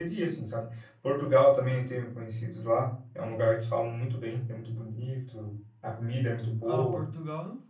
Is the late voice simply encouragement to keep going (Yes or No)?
No